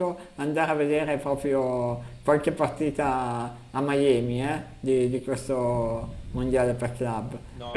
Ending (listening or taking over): taking over